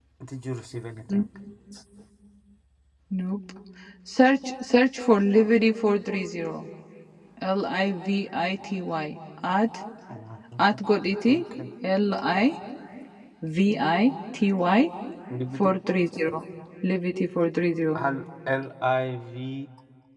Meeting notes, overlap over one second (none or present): none